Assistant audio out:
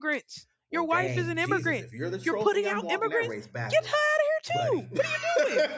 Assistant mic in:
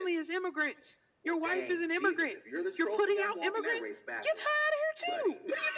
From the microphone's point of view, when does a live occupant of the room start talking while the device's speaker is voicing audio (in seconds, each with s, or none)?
none